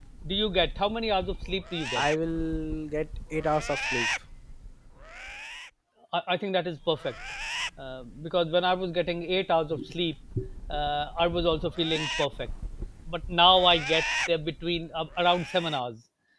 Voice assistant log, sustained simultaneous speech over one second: none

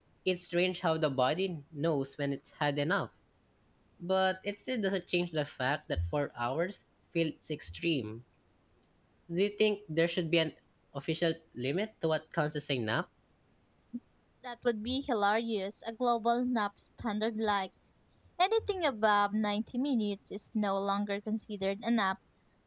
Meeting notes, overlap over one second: none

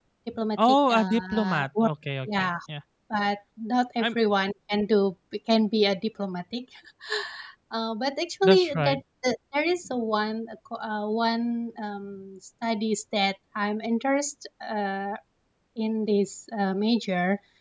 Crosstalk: present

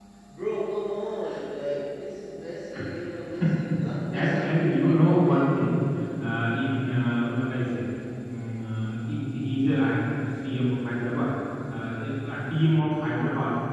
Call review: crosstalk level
present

